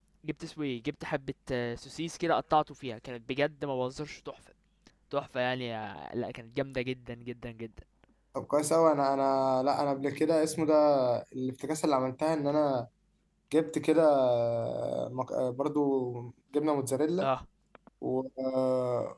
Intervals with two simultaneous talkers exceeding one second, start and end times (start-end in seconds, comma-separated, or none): none